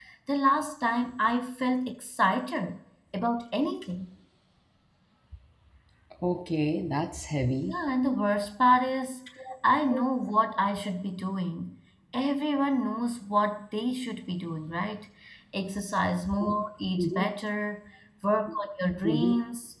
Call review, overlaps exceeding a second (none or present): none